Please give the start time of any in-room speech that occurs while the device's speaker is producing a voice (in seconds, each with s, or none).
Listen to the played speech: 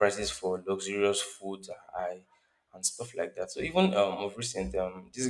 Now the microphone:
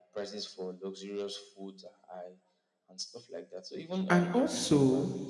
4.1 s